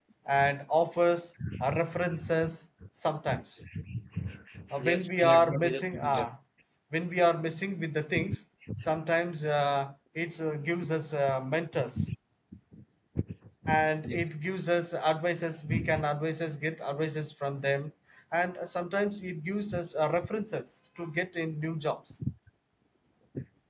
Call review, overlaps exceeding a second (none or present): present